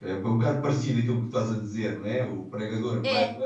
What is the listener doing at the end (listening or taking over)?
listening